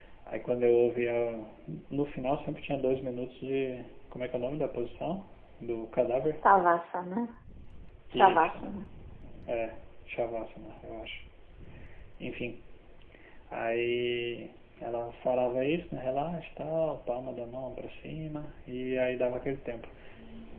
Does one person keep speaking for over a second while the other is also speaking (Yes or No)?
No